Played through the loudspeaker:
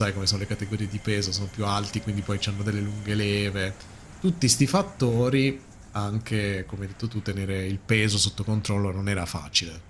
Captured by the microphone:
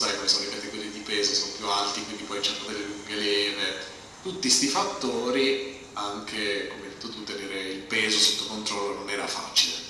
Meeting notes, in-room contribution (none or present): none